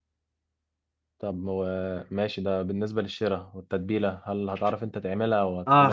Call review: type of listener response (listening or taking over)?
taking over